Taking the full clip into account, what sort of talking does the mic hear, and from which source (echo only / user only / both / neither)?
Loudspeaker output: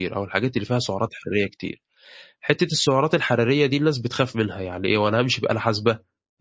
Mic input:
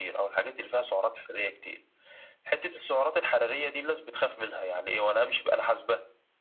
echo only